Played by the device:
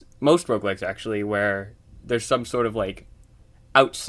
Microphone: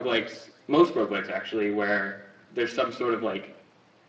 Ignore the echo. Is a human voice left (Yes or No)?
No